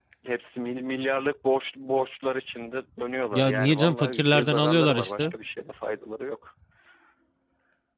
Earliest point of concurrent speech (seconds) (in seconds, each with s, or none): 3.3 s